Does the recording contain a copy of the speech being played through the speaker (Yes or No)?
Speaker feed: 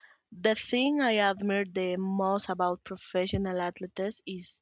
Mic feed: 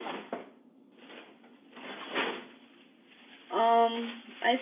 No